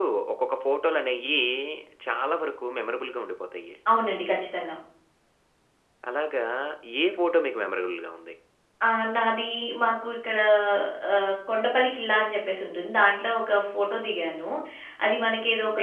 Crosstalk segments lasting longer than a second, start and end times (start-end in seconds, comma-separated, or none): none